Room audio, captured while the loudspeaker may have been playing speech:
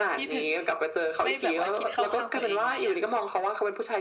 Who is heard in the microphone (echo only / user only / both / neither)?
both